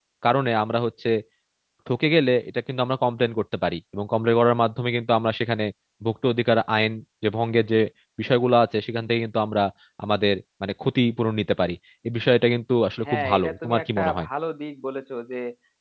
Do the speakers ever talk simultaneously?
Yes, from 13.0 s

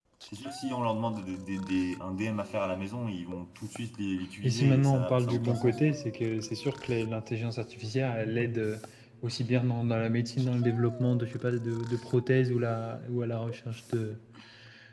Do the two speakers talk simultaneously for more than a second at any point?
Yes, from 4.4 s

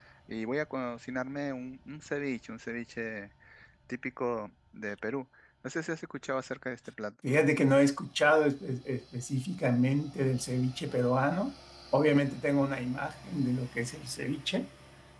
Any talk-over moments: No

